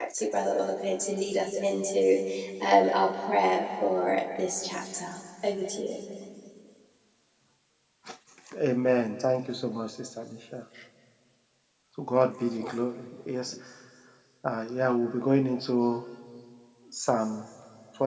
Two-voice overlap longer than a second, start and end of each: none

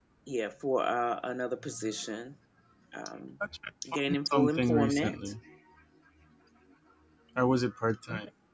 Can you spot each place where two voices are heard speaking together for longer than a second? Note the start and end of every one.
3.9-5.2

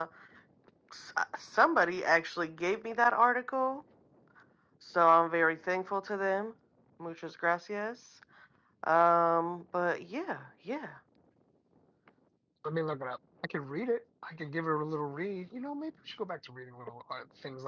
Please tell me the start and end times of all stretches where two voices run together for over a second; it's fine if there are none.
none

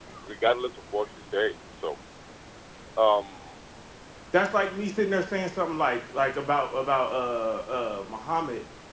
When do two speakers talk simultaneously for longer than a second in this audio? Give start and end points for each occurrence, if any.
none

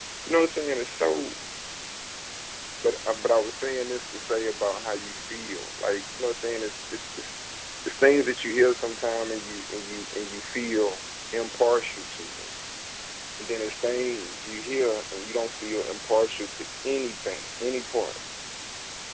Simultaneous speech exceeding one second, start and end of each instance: none

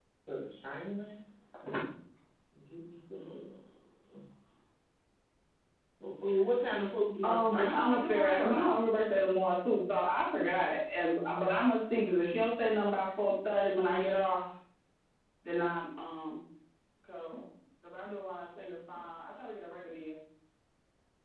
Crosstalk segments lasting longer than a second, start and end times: 7.2-8.7

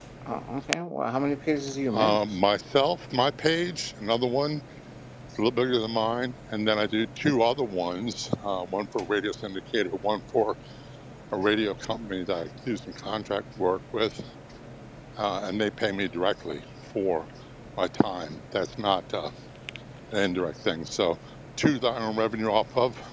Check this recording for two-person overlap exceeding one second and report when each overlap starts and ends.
none

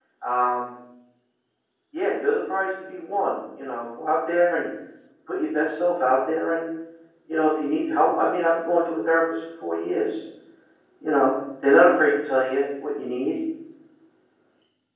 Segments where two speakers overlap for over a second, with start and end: none

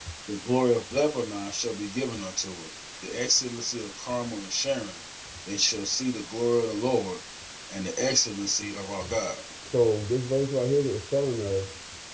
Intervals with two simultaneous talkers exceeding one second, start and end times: none

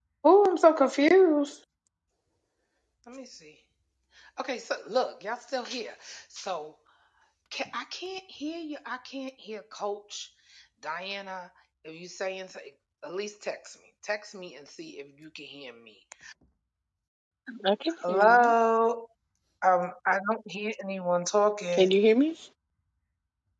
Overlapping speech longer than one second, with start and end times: none

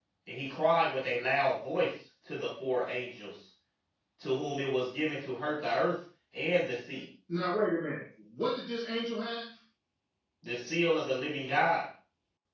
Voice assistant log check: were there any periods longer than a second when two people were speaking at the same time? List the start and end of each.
none

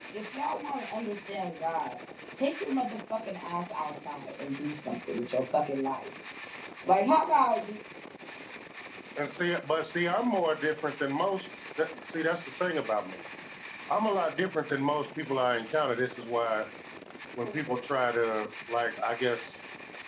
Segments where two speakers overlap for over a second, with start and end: none

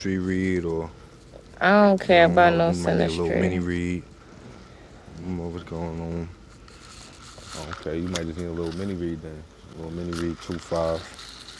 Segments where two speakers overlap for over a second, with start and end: 2.1-3.6

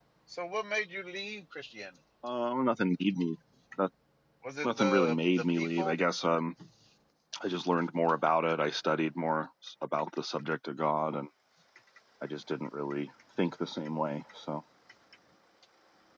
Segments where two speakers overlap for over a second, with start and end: 4.6-6.0

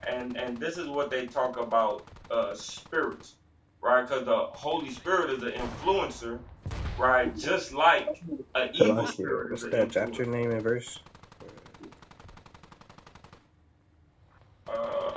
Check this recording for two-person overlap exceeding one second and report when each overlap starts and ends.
8.8-10.2

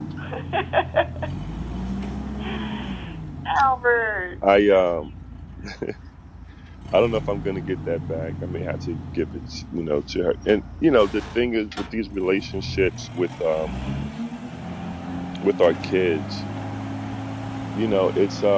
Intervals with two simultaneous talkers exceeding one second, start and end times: none

